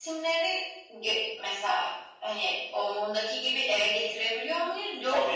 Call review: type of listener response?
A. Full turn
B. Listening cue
A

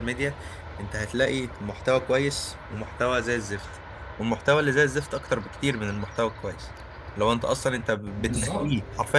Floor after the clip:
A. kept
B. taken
A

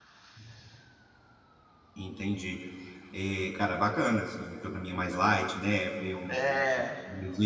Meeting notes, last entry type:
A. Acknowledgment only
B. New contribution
A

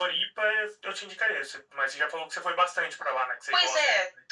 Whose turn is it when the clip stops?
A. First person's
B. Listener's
B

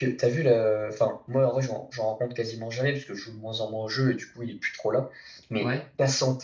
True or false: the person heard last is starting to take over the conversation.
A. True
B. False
B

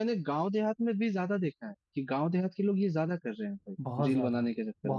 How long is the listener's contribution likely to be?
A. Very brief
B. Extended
B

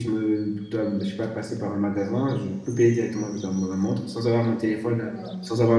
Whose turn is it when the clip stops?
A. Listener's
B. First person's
B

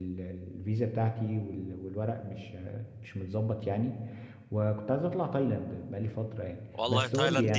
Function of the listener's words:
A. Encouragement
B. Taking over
B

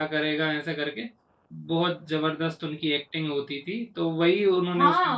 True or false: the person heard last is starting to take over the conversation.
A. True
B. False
A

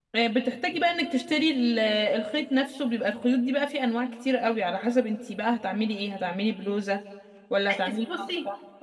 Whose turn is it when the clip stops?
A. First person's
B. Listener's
B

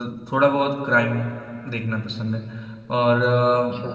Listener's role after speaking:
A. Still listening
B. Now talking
A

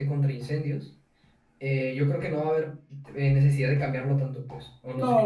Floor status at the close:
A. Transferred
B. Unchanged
A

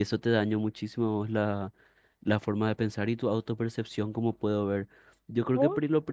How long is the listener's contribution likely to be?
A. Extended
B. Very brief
B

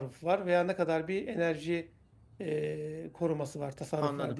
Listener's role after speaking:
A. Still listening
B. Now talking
B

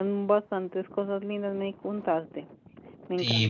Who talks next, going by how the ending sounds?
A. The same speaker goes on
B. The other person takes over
B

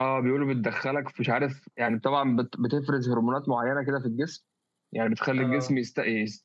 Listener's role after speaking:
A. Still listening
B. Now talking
A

